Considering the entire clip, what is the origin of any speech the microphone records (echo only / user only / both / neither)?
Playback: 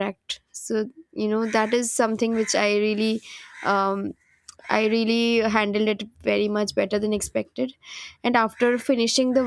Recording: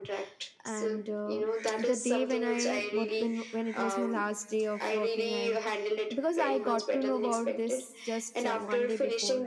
both